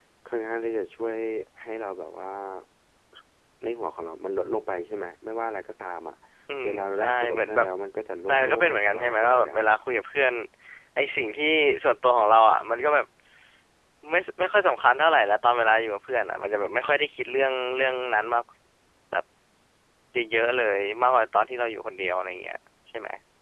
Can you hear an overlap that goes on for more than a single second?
Yes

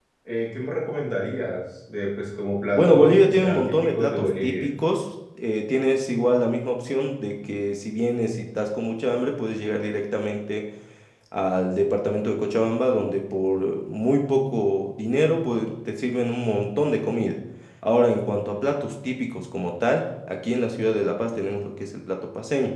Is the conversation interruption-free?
No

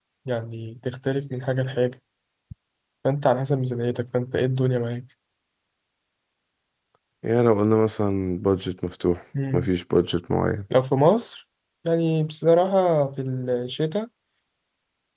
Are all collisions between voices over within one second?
Yes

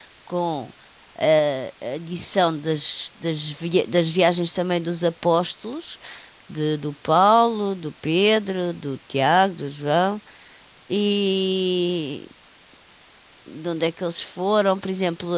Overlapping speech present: No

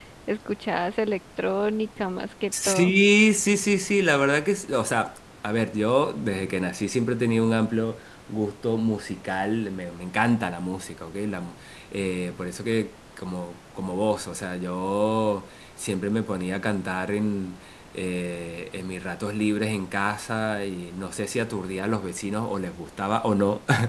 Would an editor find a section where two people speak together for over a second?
No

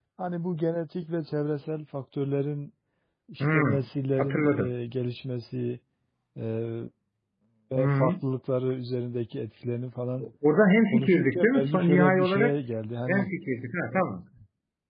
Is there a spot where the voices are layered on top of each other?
Yes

